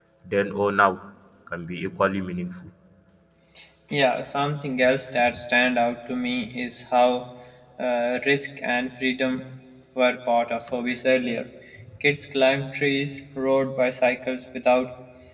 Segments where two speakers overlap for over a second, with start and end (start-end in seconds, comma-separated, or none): none